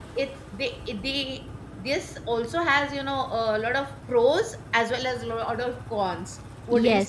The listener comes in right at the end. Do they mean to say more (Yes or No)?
Yes